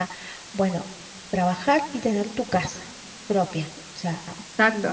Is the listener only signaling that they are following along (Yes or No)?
Yes